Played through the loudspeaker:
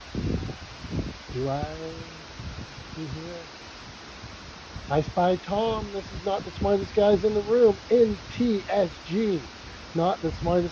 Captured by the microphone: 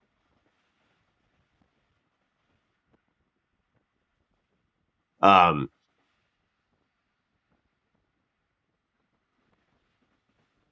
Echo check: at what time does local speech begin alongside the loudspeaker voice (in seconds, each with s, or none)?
5.2 s